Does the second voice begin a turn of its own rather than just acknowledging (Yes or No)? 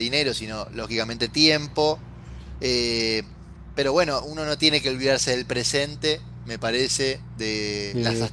No